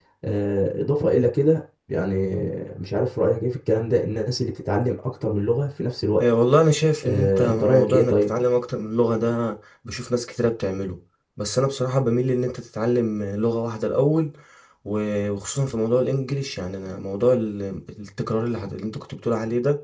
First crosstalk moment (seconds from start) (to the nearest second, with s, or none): 7 s